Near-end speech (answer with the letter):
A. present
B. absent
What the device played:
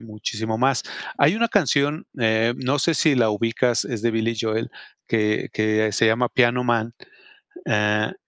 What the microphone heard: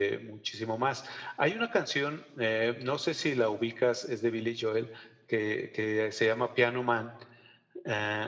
B